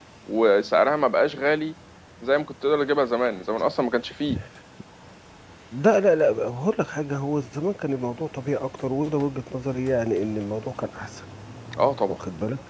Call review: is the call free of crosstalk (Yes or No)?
Yes